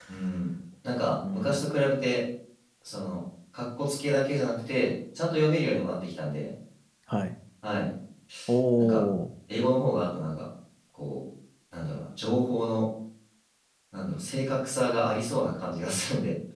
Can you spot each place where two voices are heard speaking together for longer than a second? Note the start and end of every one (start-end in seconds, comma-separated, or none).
none